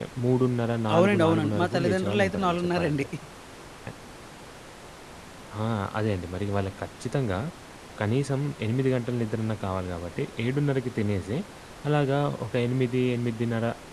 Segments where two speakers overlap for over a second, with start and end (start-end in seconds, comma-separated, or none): 0.9-3.0